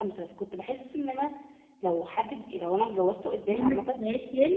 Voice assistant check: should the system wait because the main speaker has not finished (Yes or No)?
No